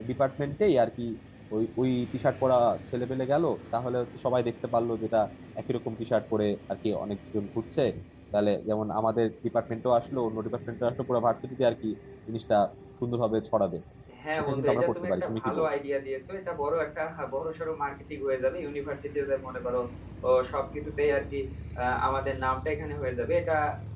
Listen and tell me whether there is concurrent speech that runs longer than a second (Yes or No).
Yes